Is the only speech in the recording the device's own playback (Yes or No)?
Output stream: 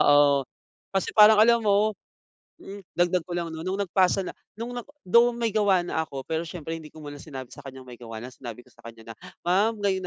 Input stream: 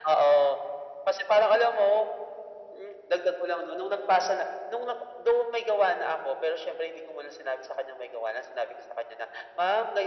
Yes